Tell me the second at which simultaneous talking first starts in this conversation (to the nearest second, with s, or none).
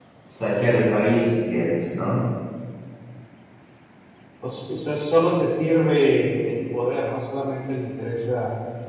none